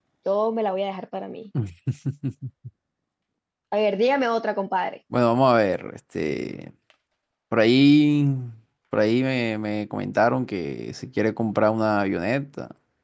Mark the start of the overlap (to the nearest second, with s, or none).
none